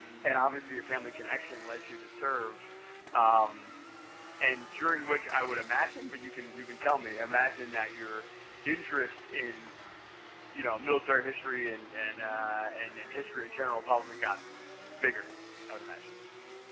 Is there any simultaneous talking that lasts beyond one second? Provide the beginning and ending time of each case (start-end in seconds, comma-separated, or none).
none